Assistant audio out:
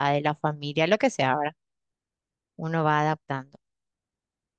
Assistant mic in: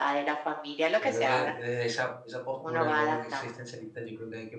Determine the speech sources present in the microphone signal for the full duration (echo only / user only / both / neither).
both